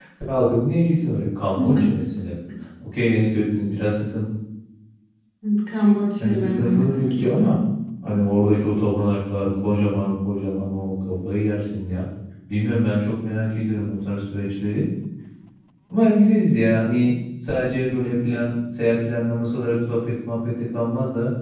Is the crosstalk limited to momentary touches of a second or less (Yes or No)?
No